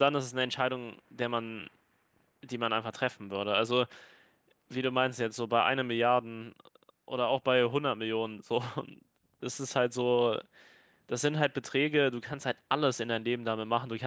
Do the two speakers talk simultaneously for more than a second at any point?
No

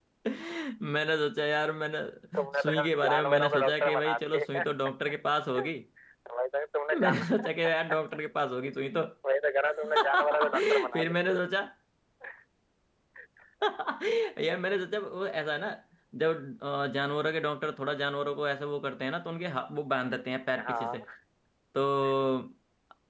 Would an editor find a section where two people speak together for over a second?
Yes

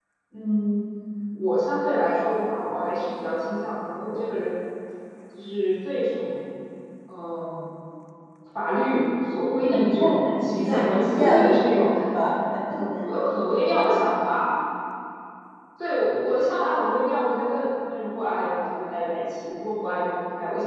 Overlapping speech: Yes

